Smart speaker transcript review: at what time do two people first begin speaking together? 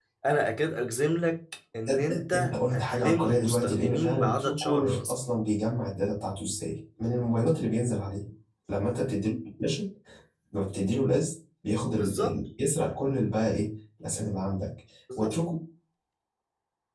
1.9 s

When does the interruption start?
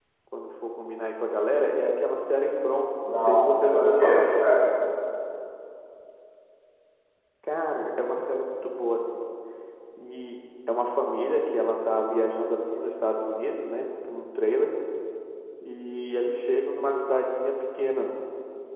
3.0 s

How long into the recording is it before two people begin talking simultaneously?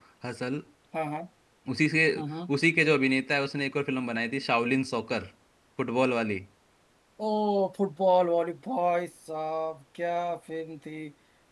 none

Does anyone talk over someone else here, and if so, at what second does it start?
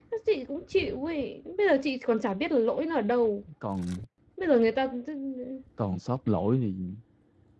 none

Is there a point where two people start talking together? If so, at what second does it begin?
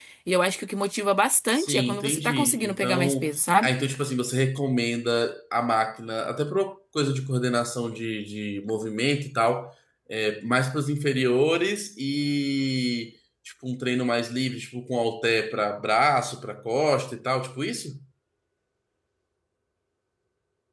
1.5 s

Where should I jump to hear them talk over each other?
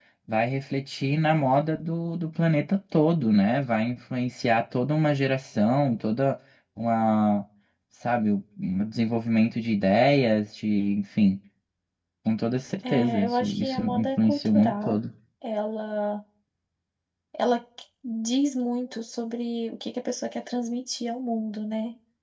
12.9 s

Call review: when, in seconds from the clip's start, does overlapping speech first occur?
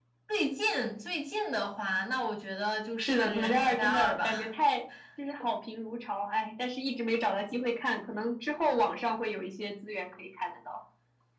3.0 s

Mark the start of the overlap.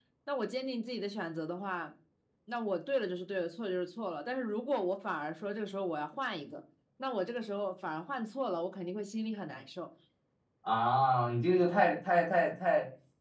none

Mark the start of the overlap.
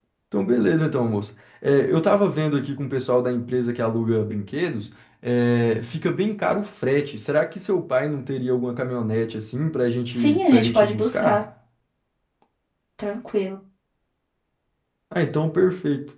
10.1 s

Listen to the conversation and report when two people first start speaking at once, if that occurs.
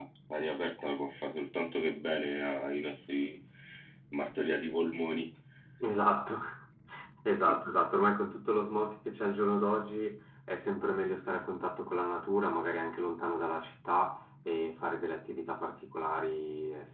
none

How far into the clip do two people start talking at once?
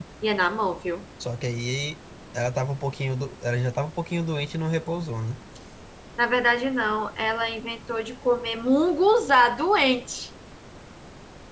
none

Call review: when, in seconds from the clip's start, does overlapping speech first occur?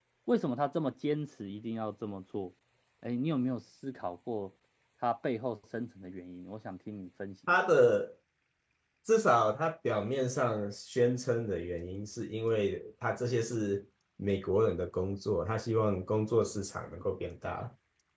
none

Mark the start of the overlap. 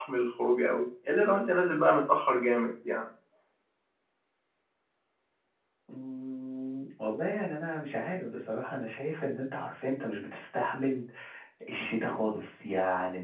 none

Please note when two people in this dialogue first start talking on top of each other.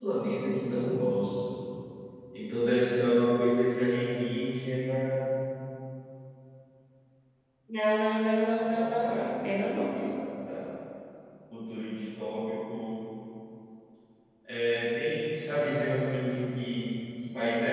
8.6 s

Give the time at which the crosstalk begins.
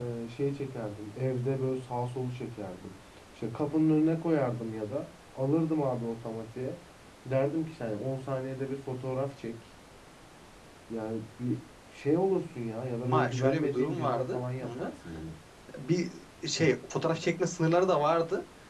13.0 s

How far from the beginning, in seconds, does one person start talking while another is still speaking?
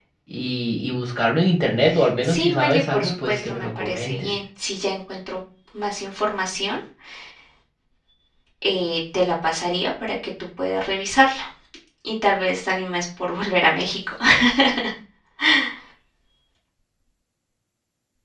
2.2 s

